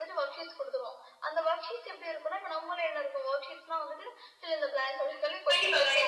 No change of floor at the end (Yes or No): No